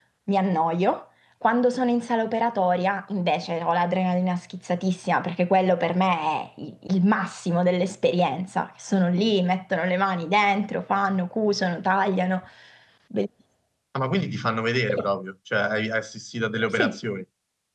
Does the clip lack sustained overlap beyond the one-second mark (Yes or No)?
Yes